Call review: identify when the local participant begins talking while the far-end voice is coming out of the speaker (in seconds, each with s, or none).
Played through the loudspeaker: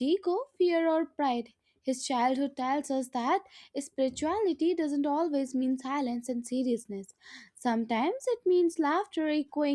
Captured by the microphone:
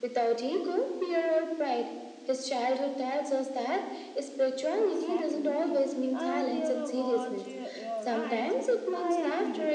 4.7 s